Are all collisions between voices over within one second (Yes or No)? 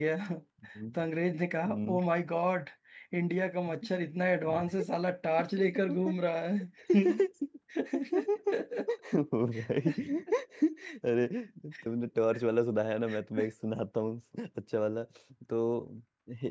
Yes